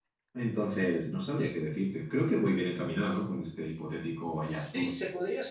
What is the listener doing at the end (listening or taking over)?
taking over